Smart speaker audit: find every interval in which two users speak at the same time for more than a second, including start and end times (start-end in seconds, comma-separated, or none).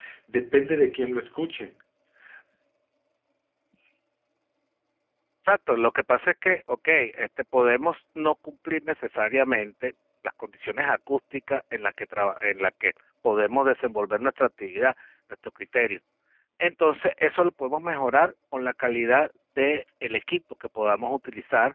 none